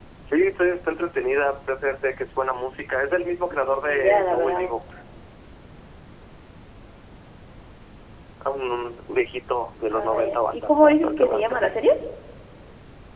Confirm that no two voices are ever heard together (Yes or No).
No